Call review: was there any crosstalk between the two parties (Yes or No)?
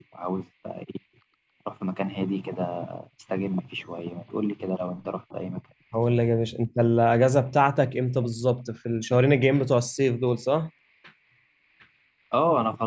No